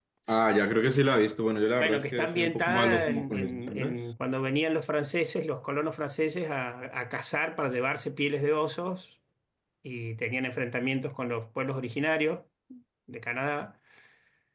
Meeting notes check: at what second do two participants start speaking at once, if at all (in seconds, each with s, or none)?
1.8 s